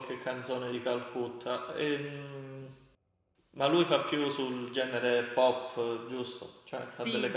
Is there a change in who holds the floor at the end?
Yes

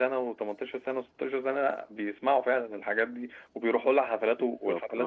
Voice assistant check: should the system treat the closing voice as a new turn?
Yes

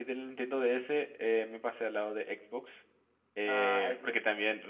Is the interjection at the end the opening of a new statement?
No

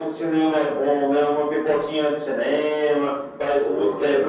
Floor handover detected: Yes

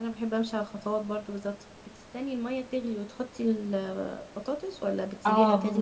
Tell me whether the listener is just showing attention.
No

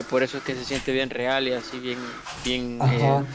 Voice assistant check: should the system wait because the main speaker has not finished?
No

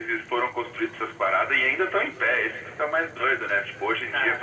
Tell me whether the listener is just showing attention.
Yes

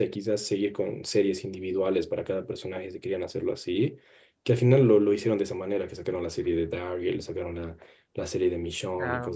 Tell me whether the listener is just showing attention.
Yes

